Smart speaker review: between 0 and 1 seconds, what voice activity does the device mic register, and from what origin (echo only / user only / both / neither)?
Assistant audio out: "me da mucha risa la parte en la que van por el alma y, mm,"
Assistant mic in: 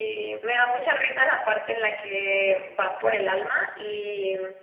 echo only